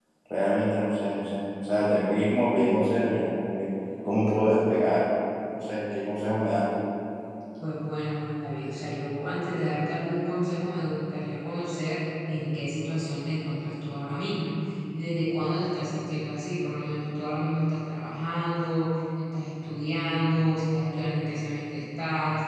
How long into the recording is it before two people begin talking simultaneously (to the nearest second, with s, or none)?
none